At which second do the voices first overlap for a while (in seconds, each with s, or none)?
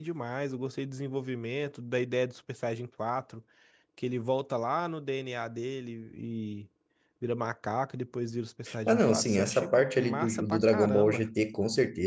8.7 s